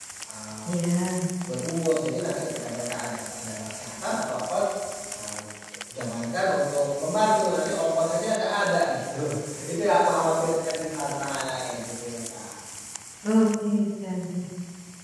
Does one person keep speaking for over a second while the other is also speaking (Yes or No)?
No